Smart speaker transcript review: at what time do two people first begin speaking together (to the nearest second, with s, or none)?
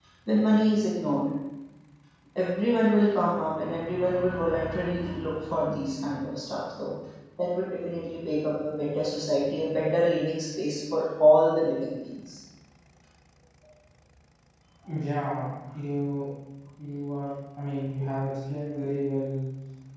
none